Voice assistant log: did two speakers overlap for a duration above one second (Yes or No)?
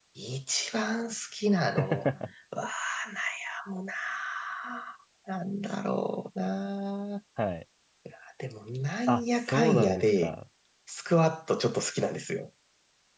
Yes